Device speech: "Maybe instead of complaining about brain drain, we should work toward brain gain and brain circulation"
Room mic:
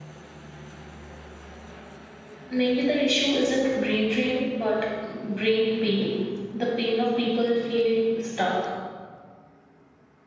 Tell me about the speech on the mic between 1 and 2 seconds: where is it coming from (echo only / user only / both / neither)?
neither